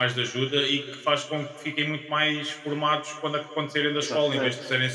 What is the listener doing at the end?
listening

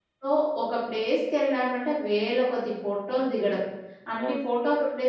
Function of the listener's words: listening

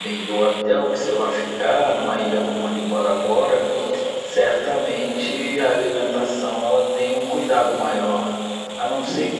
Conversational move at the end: listening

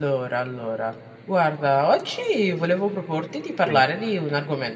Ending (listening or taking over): listening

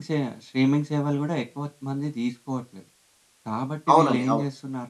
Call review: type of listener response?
listening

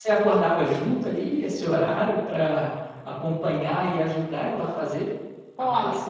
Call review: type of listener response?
taking over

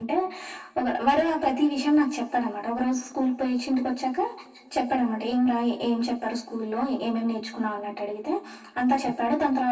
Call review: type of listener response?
listening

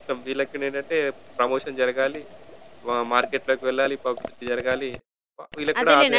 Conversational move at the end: taking over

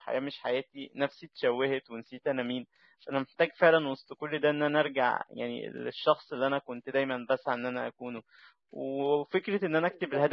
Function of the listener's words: listening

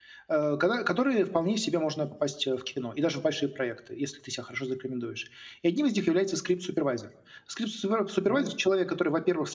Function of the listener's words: listening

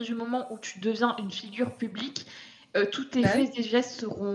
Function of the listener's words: listening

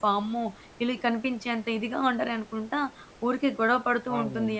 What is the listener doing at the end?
listening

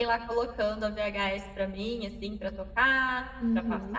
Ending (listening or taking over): taking over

